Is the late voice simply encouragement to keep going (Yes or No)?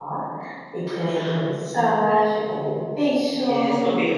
No